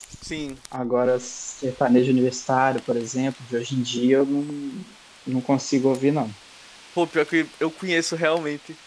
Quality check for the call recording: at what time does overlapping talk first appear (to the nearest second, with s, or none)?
none